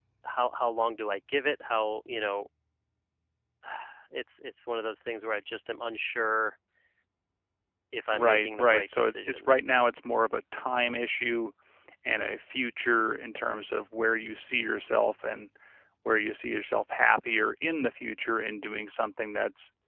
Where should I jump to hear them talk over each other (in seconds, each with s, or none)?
8.1 s